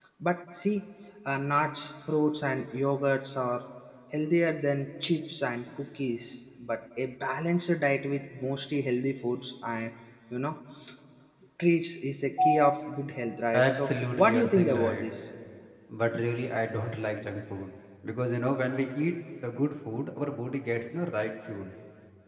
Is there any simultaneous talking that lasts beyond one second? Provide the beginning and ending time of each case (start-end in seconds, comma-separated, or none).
13.7-15.1